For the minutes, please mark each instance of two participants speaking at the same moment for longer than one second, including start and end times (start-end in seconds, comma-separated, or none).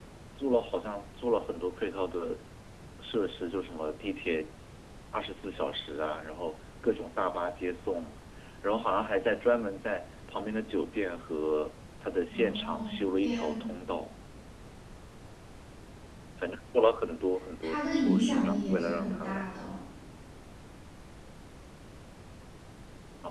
12.3-13.6, 17.6-19.5